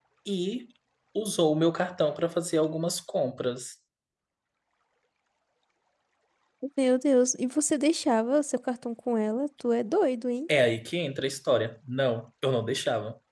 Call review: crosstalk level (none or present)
none